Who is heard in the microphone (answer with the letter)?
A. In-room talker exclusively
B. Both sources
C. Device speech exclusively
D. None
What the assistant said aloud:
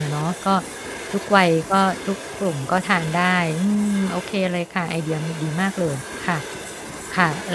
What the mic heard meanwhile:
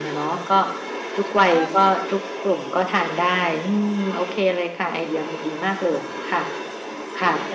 B